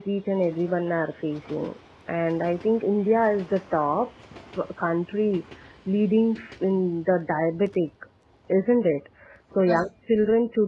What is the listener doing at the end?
listening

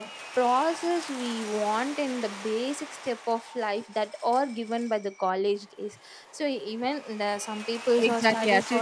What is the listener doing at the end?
taking over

